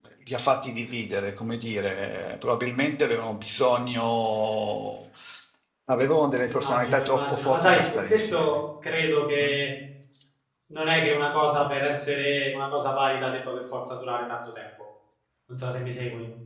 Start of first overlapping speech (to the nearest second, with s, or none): 6 s